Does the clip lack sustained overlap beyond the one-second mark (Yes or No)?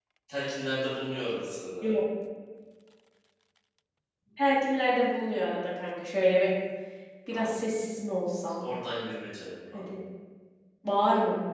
Yes